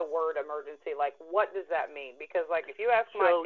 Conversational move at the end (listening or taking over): listening